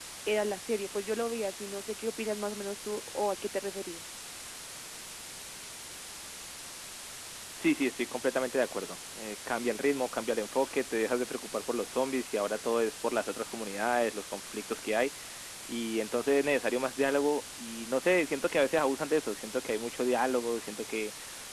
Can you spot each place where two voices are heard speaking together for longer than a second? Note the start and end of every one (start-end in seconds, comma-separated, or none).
none